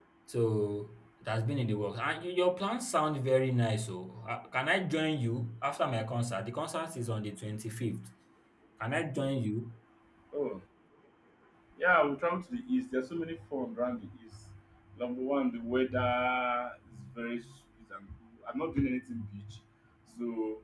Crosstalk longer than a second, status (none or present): none